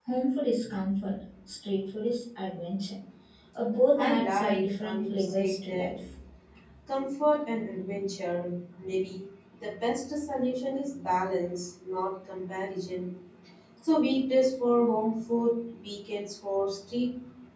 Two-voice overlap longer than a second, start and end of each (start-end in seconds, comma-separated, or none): 4.0-5.9